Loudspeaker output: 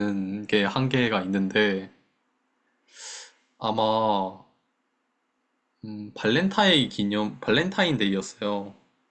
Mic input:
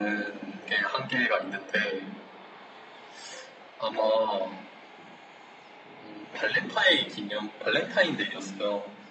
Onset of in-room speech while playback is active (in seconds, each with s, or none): none